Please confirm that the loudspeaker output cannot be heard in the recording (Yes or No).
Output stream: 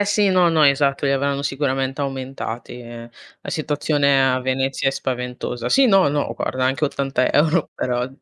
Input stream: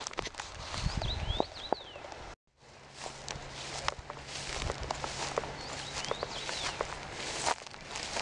Yes